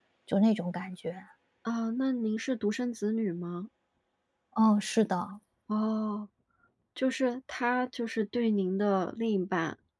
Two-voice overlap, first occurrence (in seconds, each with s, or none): none